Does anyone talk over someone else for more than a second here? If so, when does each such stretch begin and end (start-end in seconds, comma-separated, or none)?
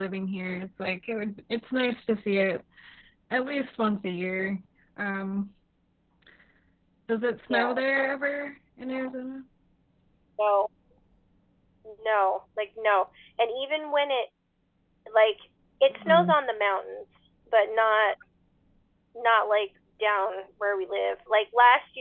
none